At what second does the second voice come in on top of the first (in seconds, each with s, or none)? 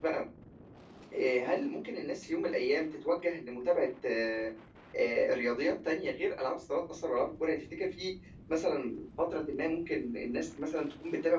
none